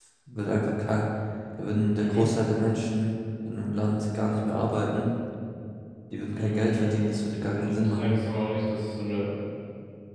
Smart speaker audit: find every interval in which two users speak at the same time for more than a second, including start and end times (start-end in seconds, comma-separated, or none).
6.4-8.2